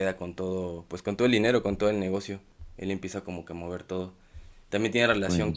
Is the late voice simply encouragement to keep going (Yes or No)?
Yes